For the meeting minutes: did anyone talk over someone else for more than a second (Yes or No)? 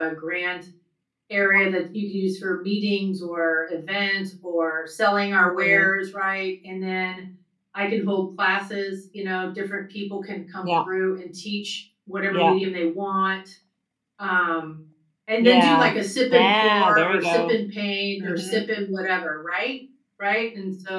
Yes